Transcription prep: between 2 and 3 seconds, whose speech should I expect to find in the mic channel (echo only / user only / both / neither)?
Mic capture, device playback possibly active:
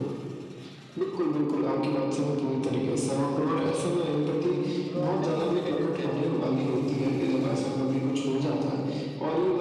echo only